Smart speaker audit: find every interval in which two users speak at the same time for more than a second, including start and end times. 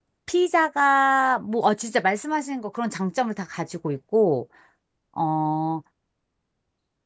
none

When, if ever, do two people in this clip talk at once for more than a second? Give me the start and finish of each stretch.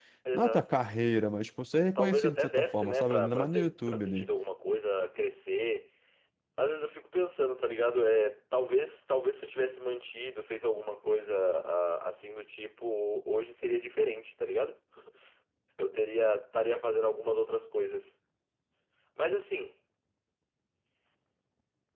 2.0-4.3

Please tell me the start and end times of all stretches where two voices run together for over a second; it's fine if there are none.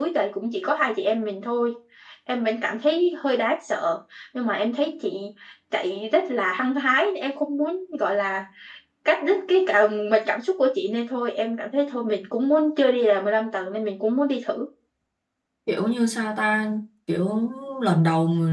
none

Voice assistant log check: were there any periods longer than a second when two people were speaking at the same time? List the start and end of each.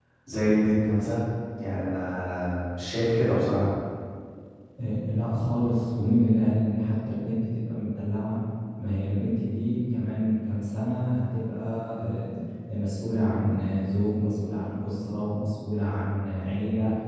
none

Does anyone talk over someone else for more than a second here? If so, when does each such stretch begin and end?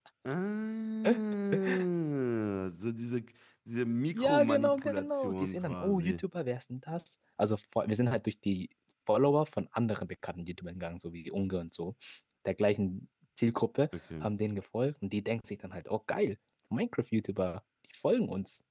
4.1-6.2

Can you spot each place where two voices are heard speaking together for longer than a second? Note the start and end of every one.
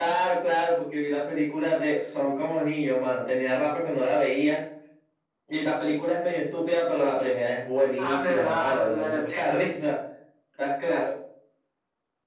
8.0-9.5

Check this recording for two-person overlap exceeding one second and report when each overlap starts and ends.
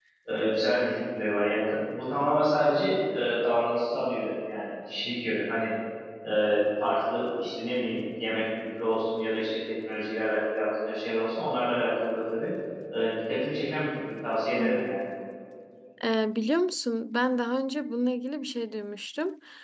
none

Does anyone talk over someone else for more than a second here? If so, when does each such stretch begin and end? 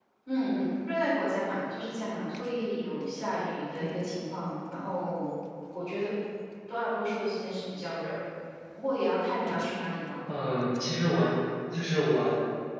none

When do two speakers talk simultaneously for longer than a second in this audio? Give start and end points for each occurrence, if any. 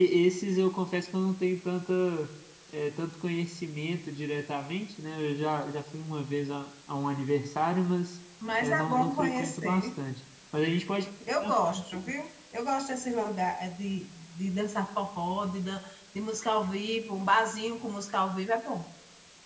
8.6-9.9

